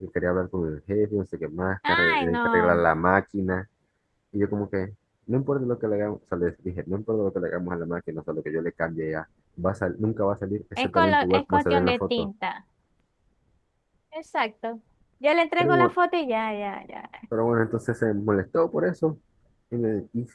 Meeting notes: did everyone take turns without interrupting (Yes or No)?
No